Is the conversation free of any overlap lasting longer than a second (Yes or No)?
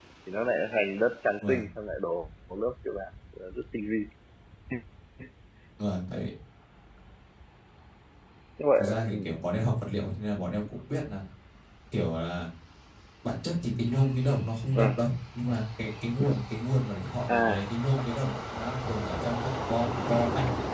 Yes